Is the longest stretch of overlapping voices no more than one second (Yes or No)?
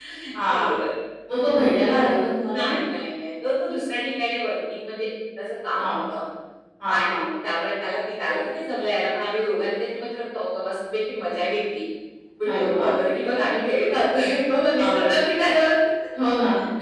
Yes